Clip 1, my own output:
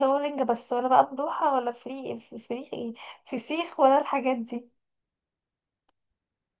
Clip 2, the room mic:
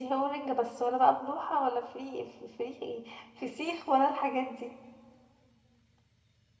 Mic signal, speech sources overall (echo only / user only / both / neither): echo only